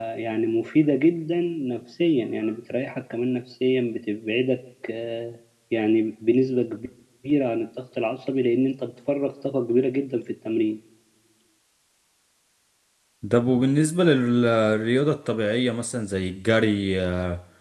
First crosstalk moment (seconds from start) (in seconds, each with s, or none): none